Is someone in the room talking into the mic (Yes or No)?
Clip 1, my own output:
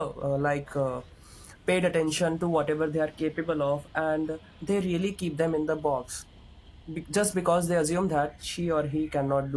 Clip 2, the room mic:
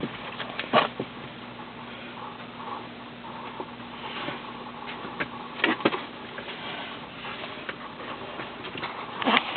No